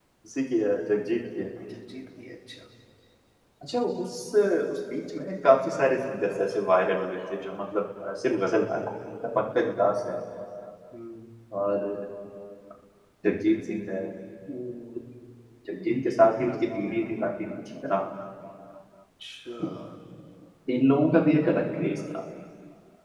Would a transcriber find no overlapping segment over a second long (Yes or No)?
Yes